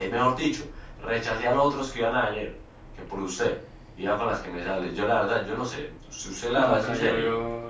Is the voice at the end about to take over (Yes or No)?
Yes